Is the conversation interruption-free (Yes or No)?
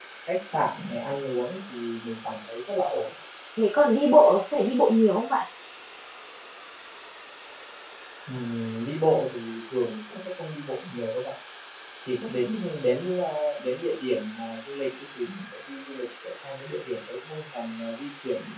Yes